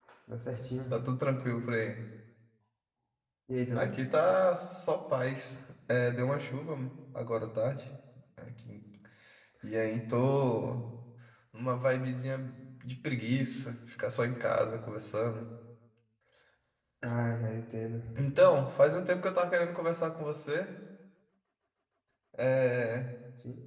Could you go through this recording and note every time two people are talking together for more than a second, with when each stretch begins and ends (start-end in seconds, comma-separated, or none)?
none